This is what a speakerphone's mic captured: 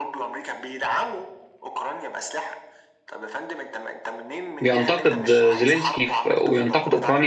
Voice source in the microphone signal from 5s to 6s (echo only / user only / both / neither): both